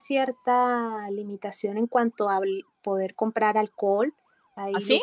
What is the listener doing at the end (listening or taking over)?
listening